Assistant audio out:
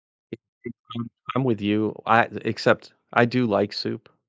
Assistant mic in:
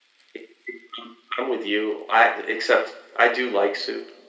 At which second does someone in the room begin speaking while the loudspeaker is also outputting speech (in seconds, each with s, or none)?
none